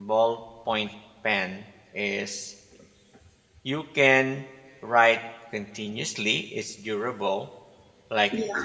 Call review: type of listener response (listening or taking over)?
listening